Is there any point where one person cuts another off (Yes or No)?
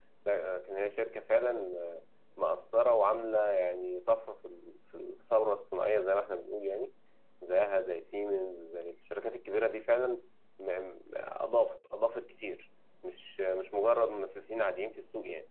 No